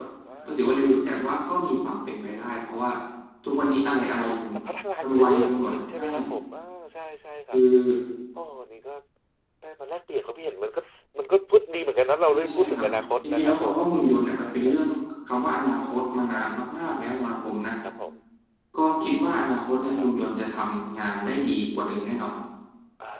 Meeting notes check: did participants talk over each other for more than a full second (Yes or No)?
Yes